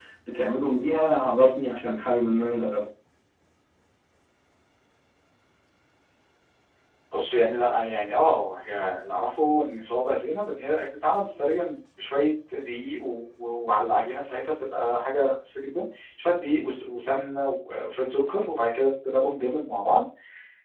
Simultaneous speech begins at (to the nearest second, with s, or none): none